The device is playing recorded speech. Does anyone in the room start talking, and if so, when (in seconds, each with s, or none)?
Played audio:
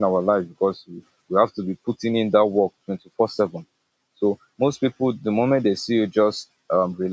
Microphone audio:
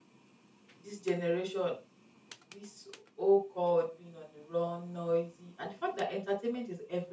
0.8 s